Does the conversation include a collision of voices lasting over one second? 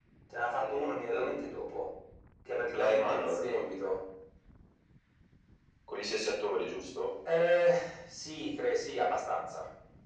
Yes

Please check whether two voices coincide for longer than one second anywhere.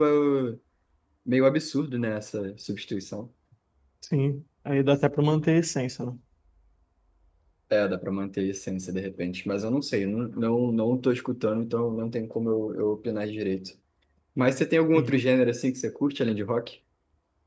No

